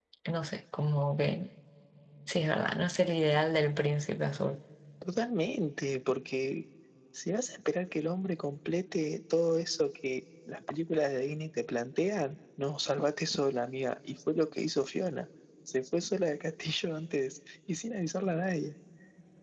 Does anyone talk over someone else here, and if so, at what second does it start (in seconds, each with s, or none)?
none